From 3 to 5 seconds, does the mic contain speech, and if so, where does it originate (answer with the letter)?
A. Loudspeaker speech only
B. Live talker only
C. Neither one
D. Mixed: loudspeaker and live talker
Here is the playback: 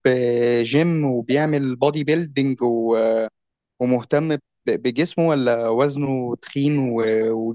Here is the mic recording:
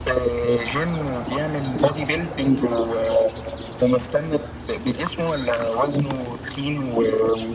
A